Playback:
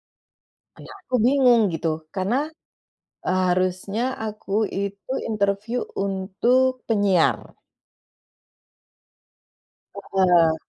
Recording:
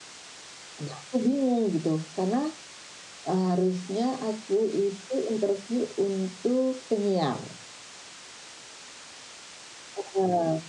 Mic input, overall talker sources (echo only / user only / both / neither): echo only